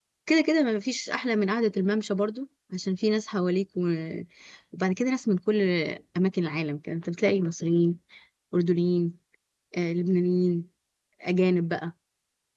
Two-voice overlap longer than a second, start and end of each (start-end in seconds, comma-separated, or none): none